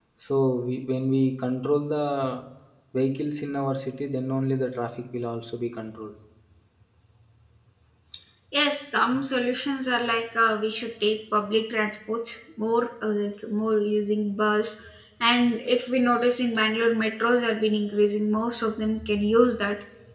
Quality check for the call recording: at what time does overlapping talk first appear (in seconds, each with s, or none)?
none